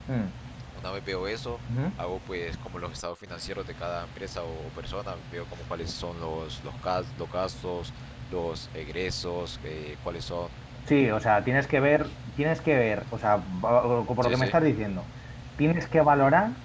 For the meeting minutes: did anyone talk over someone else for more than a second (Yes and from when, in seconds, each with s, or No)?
No